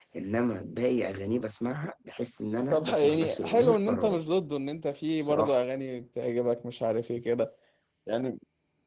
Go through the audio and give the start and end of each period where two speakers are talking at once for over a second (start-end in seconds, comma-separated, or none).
2.7-4.2